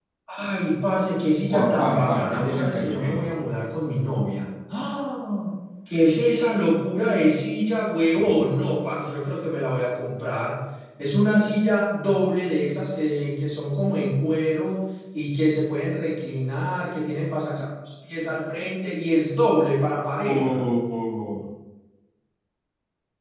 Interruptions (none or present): present